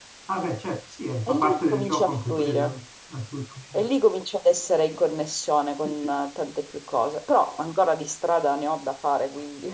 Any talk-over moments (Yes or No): Yes